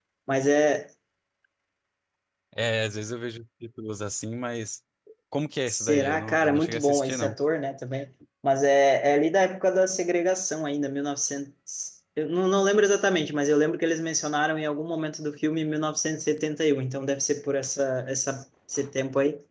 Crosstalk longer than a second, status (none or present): present